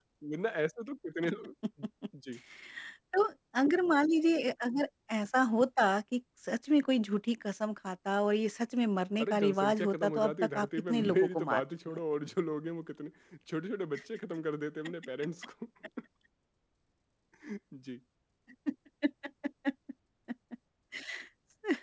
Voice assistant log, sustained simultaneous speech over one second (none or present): present